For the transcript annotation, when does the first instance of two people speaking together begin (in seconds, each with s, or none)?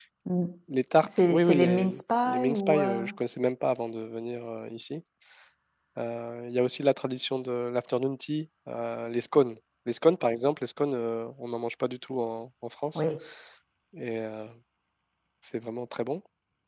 1.1 s